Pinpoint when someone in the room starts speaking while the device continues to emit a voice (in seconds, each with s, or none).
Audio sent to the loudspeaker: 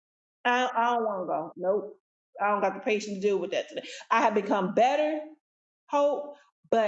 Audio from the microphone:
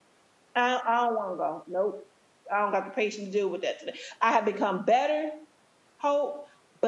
none